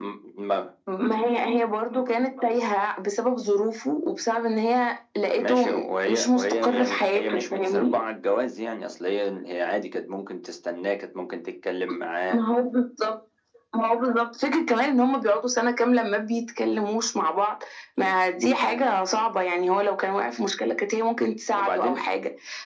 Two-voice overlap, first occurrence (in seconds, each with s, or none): 5.3 s